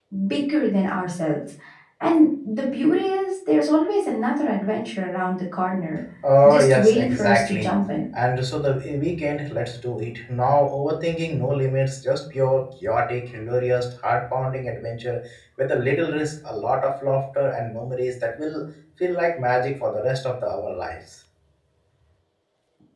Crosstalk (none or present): present